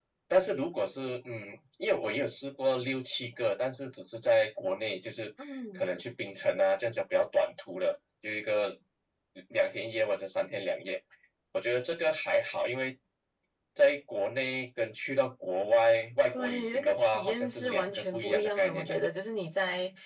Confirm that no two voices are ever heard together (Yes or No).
No